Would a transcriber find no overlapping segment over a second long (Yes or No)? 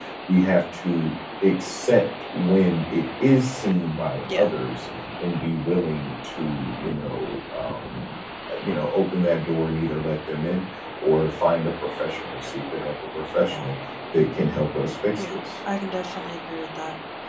Yes